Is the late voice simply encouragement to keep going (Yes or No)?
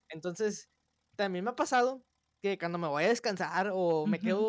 Yes